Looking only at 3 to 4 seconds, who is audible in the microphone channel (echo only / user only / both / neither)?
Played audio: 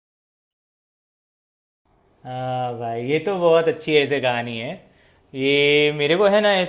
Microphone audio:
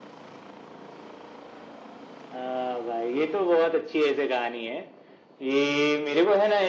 echo only